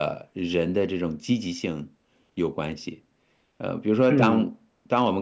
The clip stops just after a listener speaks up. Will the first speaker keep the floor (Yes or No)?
Yes